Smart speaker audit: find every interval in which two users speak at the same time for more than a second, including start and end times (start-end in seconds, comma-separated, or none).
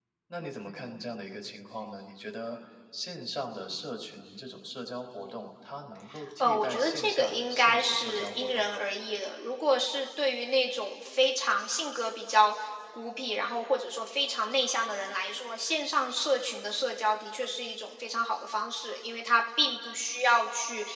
6.4-8.8